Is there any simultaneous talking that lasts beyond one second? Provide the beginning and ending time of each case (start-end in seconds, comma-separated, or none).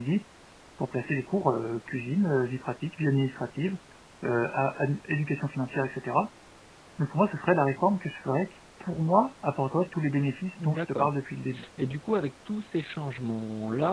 none